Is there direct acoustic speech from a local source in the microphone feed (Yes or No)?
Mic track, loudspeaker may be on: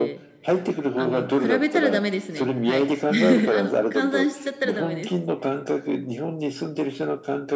Yes